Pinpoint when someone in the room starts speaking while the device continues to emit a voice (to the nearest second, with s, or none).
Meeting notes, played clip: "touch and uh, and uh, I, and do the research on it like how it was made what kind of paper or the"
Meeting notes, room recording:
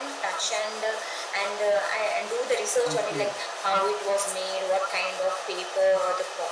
3 s